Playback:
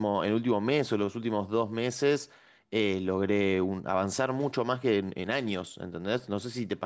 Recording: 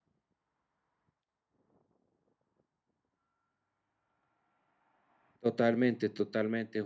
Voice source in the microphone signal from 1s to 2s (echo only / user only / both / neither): neither